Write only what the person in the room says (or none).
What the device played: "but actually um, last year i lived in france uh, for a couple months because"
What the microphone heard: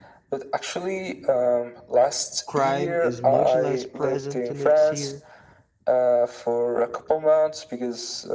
crime is much less present than it's here.